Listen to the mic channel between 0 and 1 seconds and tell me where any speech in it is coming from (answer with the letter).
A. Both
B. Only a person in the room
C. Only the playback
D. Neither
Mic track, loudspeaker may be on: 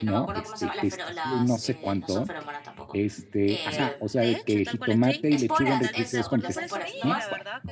A